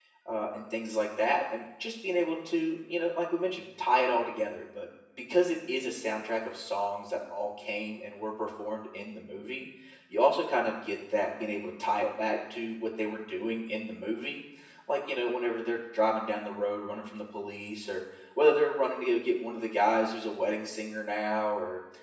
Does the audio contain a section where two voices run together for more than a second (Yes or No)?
No